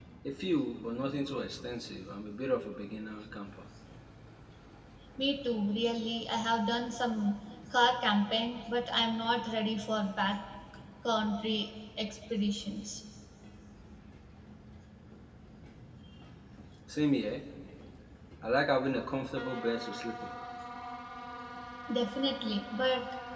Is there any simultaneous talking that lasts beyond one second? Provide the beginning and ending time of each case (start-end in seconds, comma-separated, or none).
none